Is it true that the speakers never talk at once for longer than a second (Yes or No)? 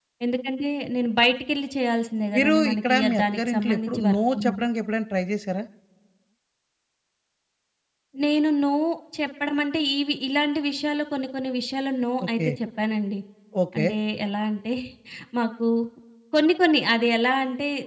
No